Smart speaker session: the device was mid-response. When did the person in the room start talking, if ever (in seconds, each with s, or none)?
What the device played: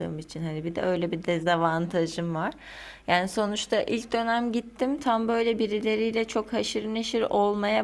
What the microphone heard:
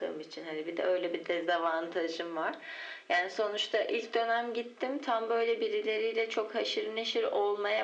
none